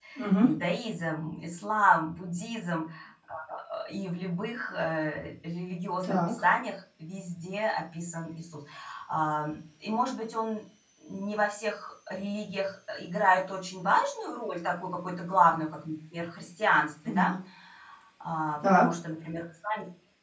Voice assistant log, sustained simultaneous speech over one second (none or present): none